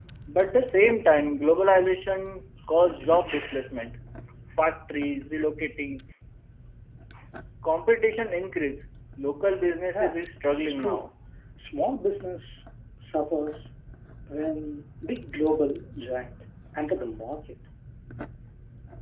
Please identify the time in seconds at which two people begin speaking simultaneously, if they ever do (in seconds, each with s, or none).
9.9 s